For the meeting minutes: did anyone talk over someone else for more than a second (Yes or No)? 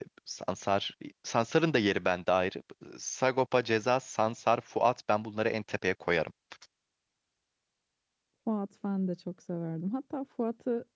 No